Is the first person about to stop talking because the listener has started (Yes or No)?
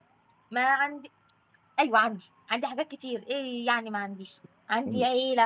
No